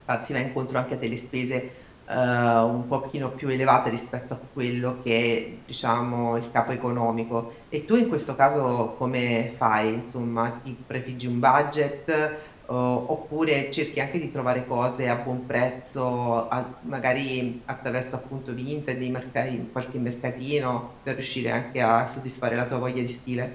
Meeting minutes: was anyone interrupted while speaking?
No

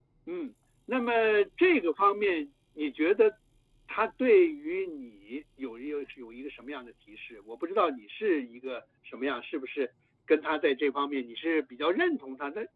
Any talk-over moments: No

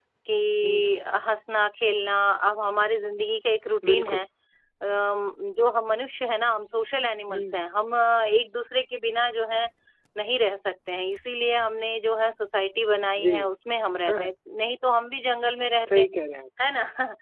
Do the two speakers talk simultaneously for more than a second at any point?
No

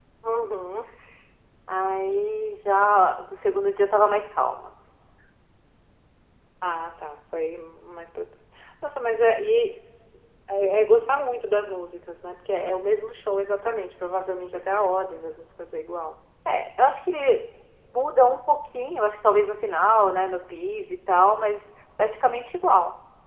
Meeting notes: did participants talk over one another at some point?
No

